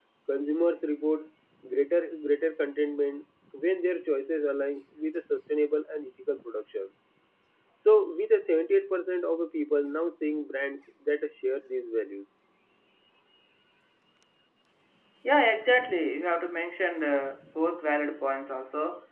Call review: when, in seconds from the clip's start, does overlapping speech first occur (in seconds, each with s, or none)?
none